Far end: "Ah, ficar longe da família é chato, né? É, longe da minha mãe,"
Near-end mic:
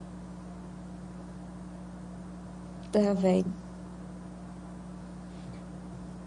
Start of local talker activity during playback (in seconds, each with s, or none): 2.9 s